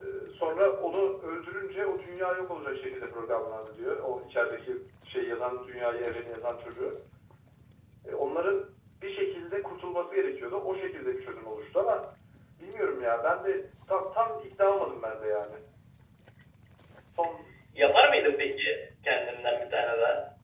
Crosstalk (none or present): none